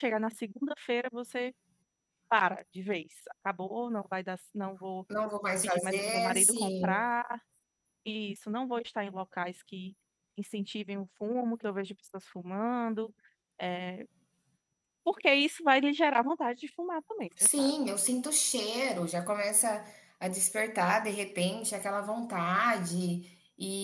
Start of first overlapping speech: 6 s

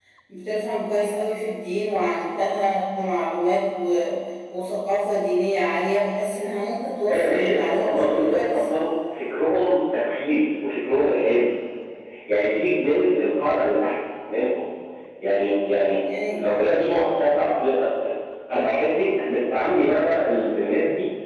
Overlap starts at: 7 s

